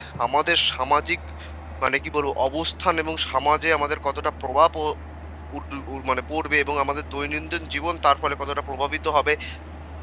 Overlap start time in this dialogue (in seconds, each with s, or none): none